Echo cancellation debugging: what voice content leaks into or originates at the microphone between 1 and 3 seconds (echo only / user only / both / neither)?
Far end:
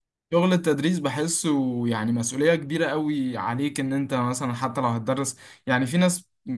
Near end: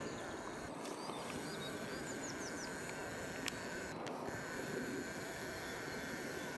neither